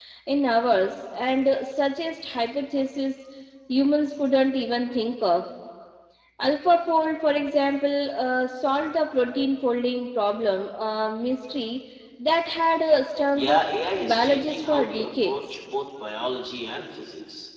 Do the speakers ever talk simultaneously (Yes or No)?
Yes